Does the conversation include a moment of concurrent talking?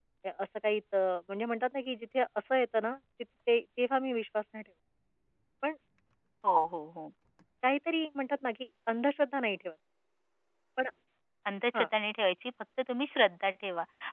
No

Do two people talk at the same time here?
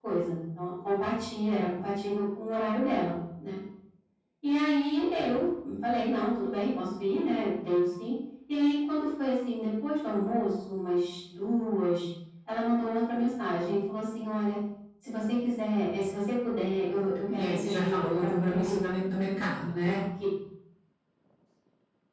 Yes, from 17.3 s

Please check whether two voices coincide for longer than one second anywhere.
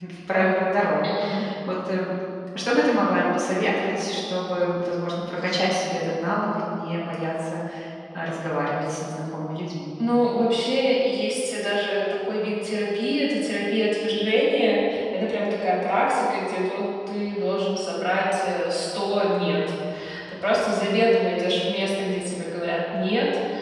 No

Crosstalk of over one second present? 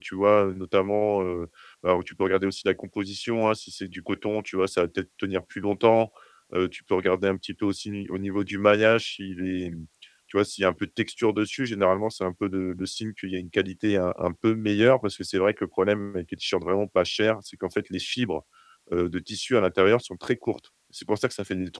No

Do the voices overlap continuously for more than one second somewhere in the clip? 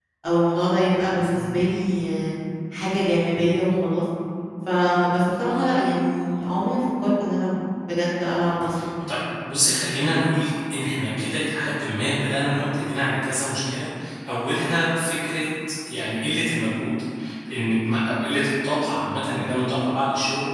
No

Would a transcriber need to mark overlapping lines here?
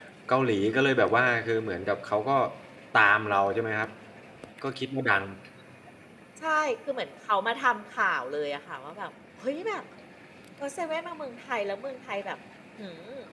No

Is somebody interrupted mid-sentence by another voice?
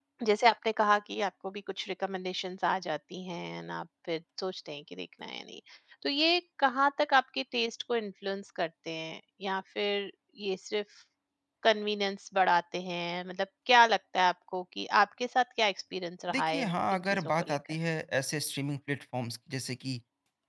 Yes, from 16.3 s

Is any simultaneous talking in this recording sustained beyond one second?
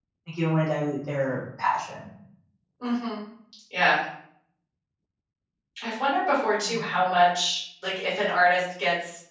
No

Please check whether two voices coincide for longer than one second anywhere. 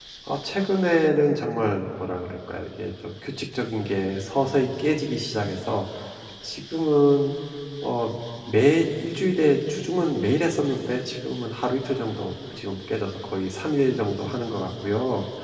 No

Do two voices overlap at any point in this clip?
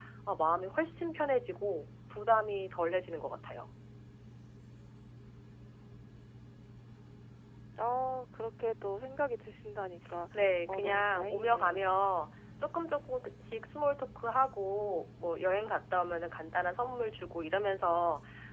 Yes, from 10.7 s

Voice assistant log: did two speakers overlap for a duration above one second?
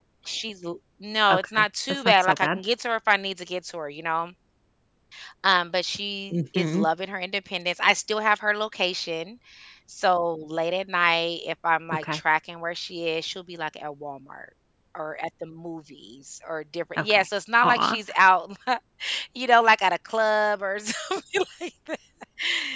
Yes, from 1.3 s

